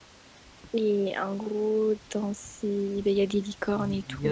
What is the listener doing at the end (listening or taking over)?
taking over